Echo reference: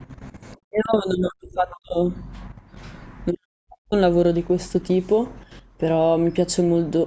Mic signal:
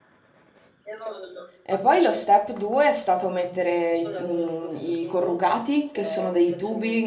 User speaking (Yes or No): Yes